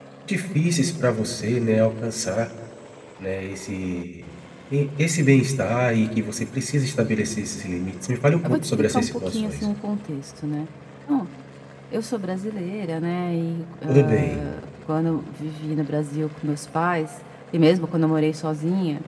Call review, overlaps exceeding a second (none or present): present